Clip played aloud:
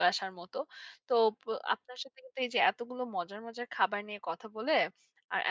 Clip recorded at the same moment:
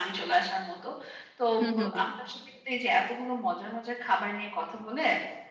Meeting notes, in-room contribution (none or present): present